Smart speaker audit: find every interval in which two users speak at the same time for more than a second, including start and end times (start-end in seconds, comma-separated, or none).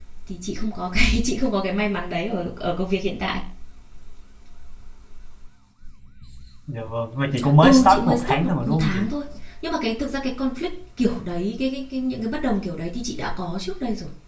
7.6-9.1